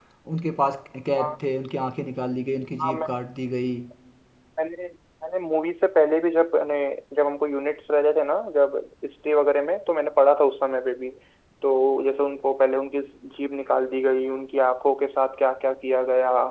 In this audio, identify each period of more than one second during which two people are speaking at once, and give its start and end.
none

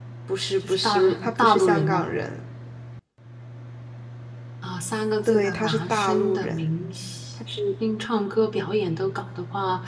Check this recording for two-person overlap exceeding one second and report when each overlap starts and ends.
0.6-2.0, 5.2-6.7

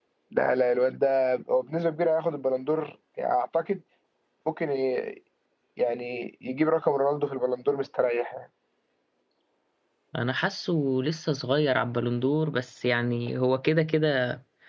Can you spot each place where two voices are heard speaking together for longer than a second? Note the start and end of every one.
none

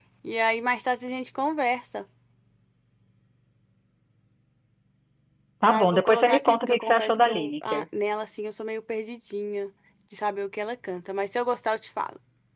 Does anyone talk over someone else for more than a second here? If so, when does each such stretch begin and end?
5.7-7.8

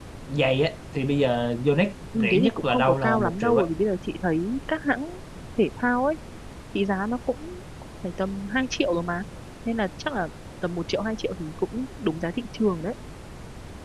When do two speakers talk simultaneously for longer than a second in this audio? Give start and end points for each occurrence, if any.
2.1-3.6

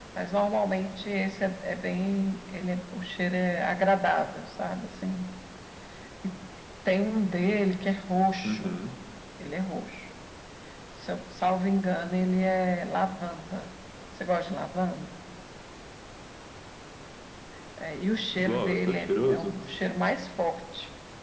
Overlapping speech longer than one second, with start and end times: 18.4-19.6

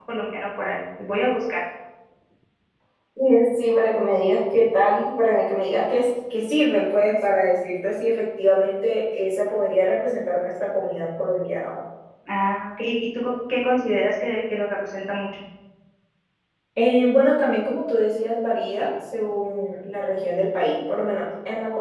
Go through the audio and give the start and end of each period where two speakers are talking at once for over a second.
none

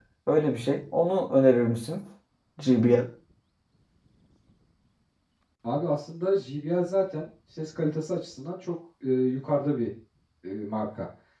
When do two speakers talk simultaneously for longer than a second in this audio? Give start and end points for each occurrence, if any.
none

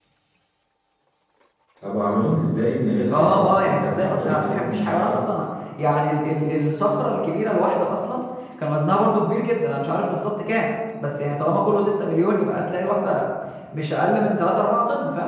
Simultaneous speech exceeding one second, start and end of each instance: 3.1-5.2

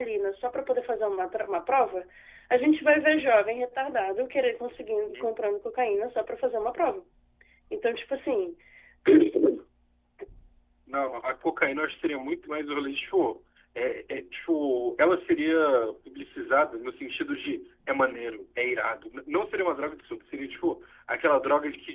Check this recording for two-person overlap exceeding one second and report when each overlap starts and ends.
none

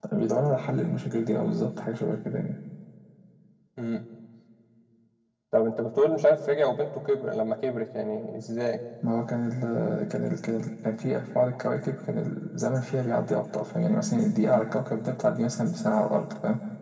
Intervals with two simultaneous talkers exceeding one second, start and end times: none

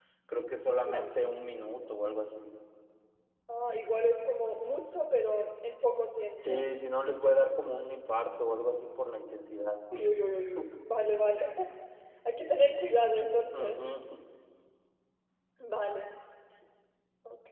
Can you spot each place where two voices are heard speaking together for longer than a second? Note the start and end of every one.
none

